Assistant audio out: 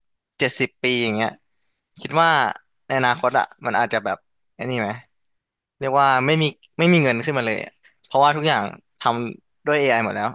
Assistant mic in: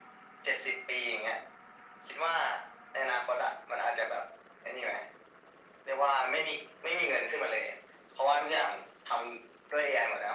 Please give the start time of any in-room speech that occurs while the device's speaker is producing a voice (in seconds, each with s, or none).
none